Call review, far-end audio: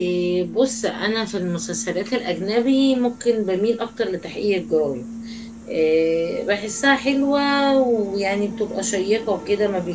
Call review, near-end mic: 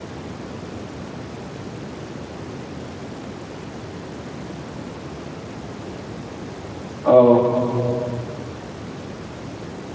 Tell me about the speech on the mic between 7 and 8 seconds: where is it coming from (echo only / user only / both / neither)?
user only